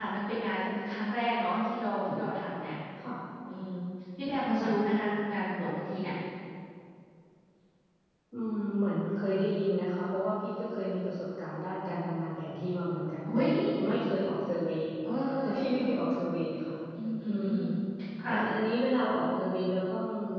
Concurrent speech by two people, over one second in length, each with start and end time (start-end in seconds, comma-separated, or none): none